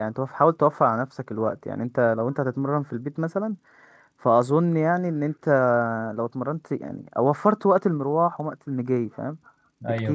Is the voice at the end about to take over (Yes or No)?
Yes